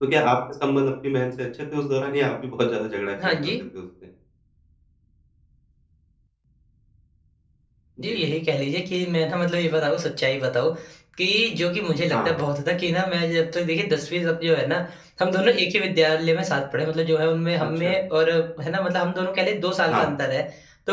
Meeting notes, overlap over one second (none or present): none